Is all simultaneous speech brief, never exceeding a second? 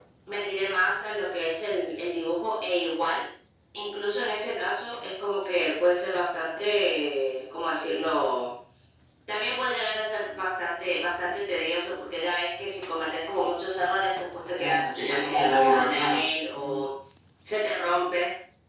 No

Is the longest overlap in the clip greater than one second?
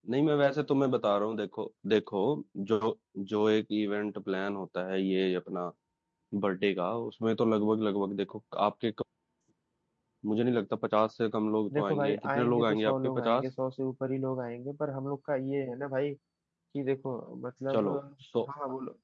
Yes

